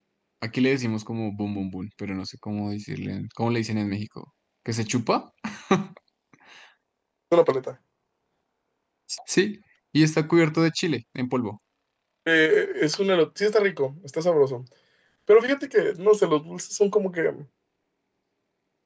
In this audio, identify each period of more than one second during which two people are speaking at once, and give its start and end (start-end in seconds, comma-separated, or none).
none